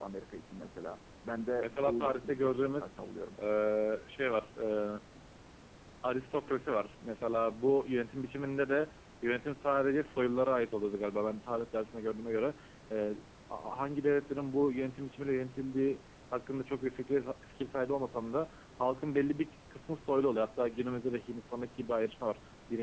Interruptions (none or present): present